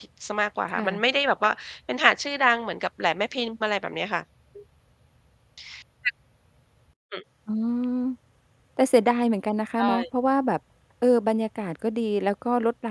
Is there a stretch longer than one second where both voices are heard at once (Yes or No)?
No